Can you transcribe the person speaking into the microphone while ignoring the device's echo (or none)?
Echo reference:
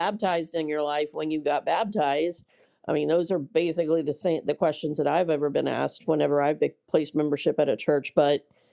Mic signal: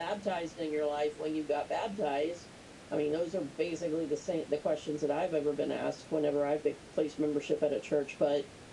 none